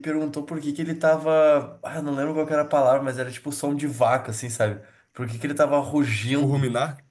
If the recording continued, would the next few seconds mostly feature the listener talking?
No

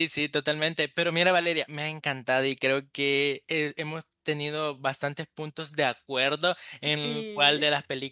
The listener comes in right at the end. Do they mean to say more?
No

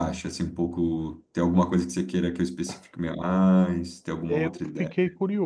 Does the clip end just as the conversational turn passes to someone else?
Yes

